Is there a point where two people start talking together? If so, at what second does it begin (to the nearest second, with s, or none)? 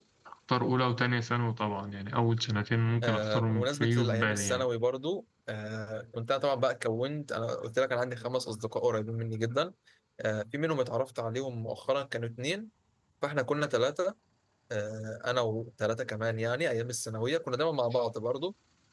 3 s